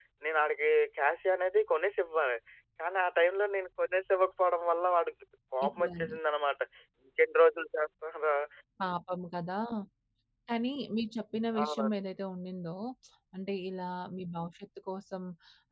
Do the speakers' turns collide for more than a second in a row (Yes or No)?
No